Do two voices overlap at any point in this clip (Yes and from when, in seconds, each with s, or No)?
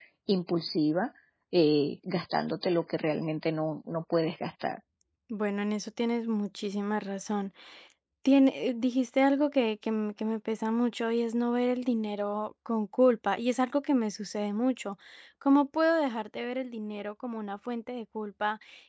No